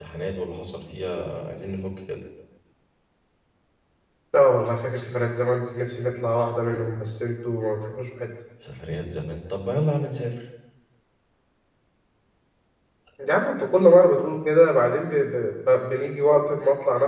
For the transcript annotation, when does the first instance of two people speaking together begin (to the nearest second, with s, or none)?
none